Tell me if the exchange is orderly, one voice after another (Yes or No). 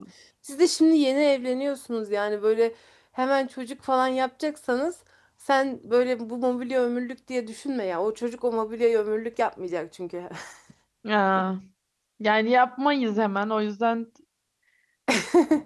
Yes